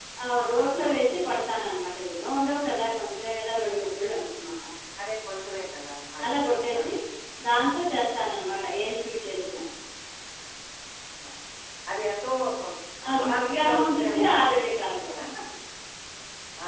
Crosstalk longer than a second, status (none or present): present